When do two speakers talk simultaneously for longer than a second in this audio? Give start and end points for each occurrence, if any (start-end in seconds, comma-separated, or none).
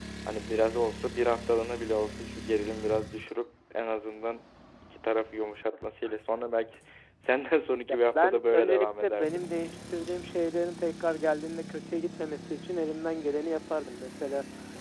7.9-9.4